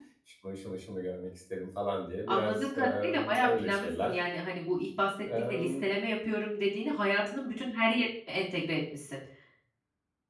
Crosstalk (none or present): present